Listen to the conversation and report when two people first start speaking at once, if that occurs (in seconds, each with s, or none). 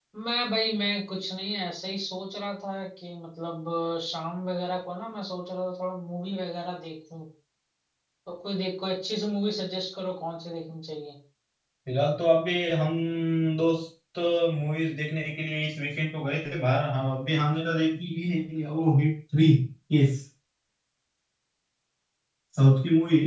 none